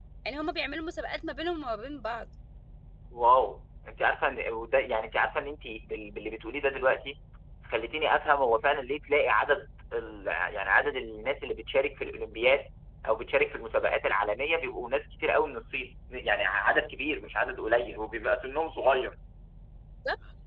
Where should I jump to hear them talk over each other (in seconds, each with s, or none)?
none